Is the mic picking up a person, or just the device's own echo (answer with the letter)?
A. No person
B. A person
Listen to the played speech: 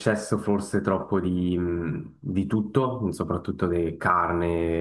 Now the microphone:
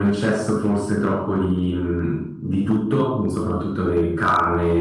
A